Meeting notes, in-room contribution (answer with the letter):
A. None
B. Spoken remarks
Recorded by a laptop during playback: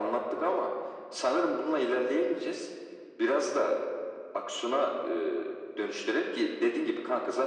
A